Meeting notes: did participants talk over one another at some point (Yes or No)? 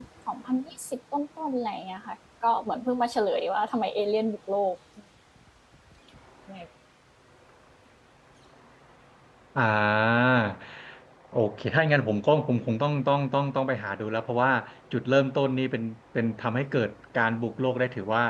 No